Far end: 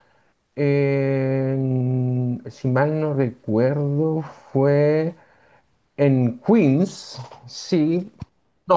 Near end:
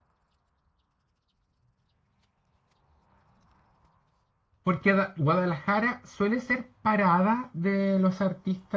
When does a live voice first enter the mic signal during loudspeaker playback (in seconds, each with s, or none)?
4.6 s